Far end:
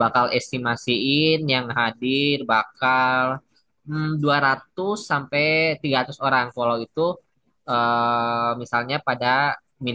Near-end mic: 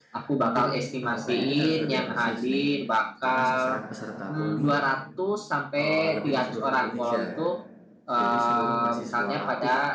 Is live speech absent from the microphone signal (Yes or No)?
No